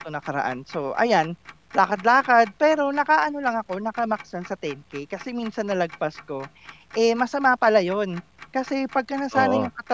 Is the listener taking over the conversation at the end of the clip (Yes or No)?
No